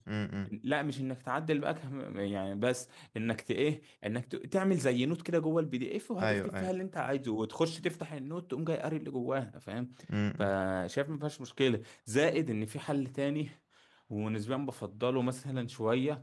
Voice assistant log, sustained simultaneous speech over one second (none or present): none